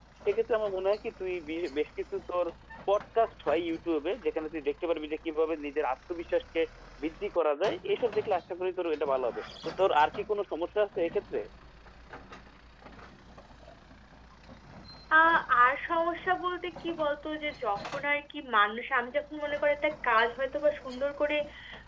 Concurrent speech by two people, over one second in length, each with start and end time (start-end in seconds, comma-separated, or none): none